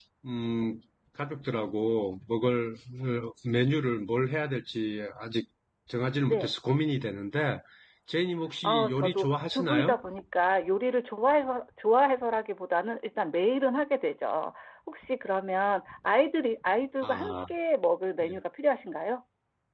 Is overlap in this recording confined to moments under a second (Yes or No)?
No